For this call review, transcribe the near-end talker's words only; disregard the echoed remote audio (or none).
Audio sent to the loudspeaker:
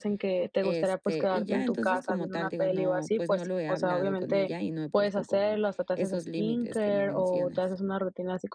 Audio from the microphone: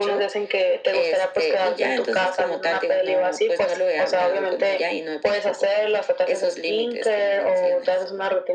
none